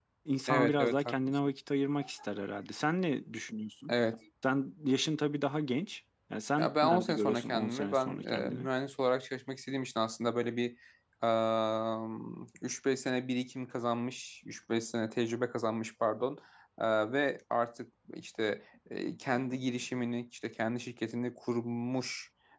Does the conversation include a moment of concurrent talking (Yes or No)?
Yes